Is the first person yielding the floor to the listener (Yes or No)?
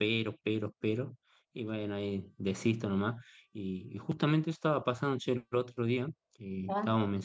No